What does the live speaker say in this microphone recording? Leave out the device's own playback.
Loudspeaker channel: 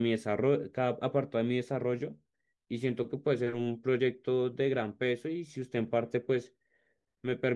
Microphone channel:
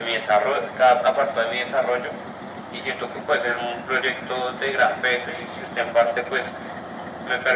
none

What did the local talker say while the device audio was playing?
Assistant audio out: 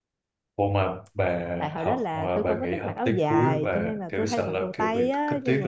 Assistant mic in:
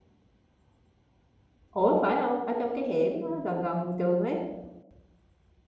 ủa phải không ở trong cái hẻm á, gần gần trường ấy

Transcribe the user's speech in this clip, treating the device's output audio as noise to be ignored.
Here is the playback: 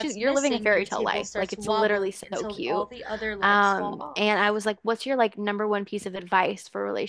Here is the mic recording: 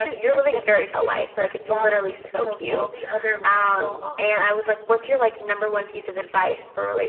none

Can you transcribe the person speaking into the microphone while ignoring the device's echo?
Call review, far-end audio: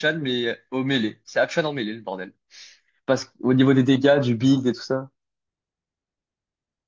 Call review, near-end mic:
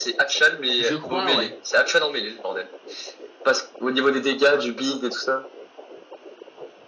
Je crois, ouais.

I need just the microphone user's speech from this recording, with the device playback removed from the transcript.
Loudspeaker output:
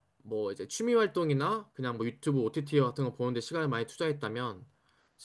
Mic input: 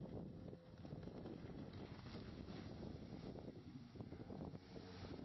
none

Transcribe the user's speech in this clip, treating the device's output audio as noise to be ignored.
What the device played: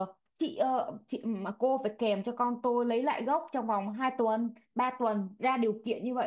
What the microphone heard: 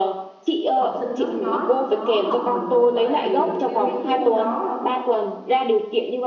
học sinh nó nói nó học mình không phải vì nó yêu thích cái môn đó đâu

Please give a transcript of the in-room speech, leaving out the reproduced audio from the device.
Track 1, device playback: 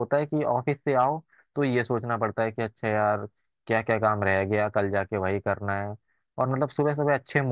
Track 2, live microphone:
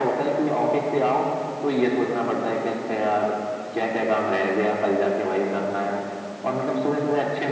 none

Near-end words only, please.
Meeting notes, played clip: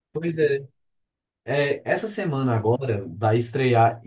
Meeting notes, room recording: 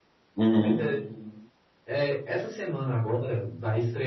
Uhum.

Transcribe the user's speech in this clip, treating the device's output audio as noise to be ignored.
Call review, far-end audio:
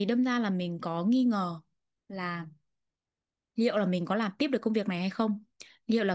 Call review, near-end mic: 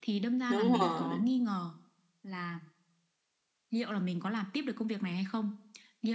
đúng rồi

